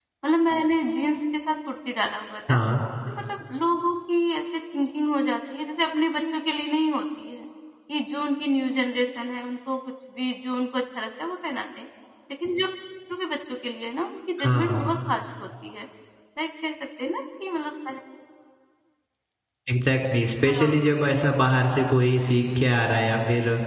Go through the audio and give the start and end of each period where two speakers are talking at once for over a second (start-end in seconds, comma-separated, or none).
none